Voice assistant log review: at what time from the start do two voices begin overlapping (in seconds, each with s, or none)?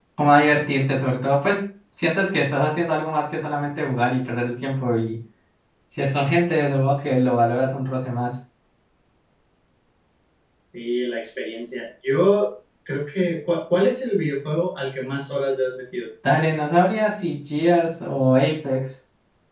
none